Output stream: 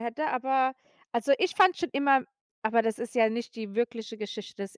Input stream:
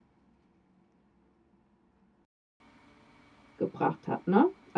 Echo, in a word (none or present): none